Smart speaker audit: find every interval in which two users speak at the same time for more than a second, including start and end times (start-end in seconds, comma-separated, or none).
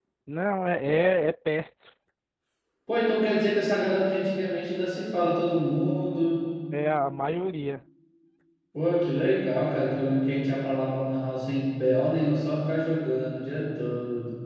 none